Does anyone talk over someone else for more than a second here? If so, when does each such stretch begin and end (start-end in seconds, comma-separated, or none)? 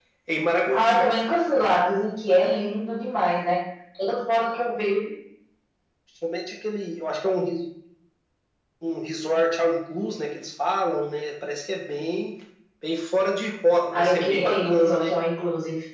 13.9-15.1